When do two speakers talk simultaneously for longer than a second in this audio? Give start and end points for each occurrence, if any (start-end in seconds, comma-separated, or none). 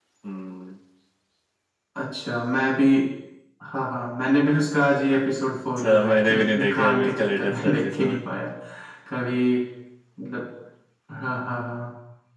5.8-8.2